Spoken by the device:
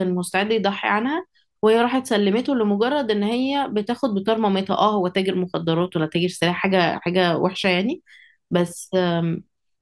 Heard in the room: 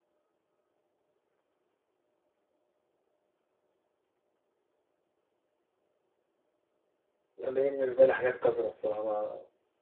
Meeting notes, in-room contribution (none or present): present